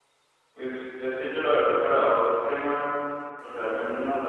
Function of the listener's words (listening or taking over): listening